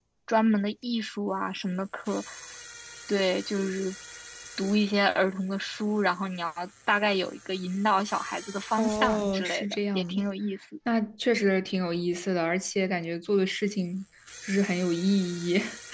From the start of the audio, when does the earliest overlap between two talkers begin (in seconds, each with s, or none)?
8.8 s